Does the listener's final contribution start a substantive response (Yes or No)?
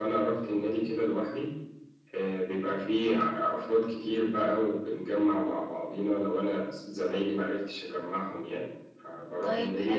Yes